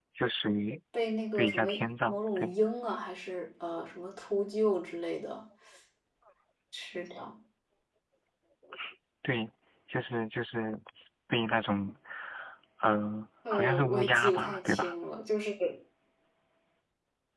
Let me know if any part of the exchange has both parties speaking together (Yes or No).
Yes